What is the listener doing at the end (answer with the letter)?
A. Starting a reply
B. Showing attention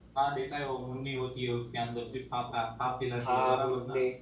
A